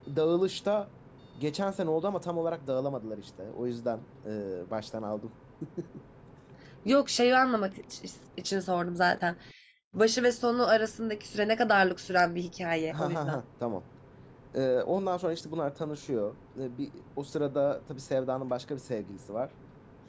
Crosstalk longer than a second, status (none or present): none